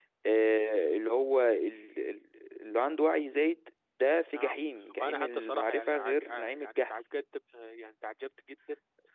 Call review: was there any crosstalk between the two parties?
Yes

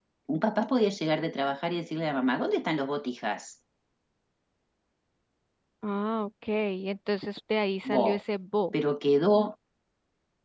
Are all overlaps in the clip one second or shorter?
Yes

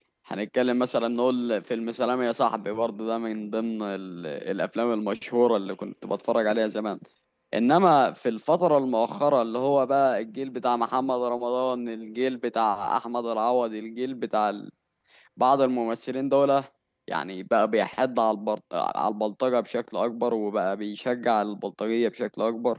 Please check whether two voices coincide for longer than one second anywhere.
No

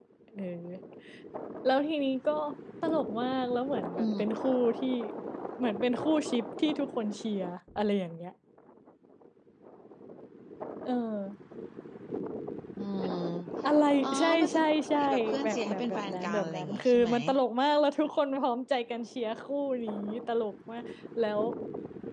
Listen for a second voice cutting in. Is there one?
Yes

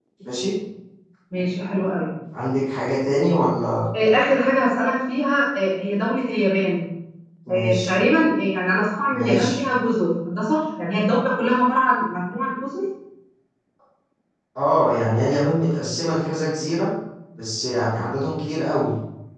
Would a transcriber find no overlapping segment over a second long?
Yes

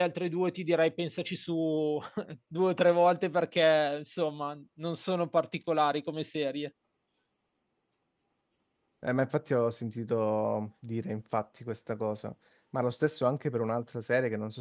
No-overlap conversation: Yes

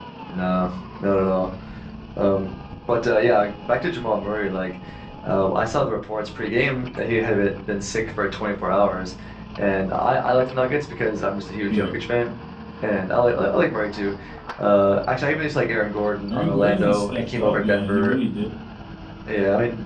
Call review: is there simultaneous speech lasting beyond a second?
Yes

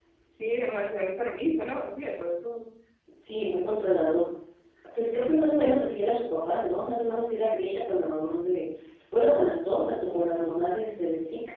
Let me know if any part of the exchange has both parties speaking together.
No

